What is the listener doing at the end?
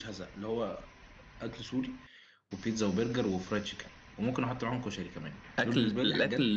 taking over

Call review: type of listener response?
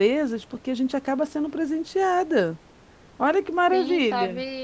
taking over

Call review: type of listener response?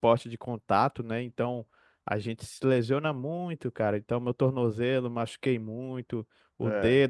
listening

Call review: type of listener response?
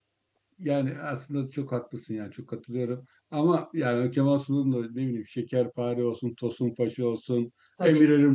listening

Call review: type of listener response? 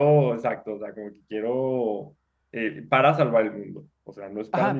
taking over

